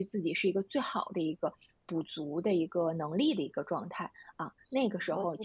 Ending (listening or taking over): taking over